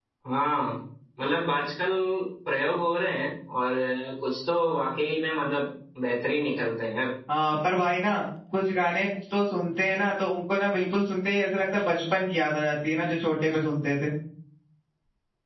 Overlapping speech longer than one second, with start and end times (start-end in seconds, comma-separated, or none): none